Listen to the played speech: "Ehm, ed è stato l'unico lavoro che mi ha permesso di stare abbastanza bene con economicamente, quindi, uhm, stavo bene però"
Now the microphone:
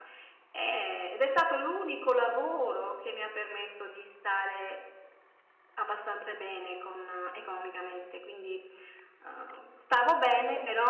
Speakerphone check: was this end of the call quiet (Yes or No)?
Yes